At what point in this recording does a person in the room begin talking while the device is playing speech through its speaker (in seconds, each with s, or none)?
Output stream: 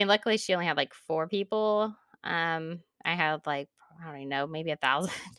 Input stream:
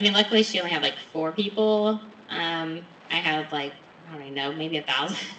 none